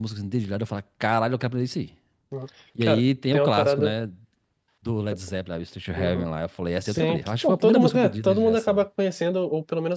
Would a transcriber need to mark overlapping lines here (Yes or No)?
Yes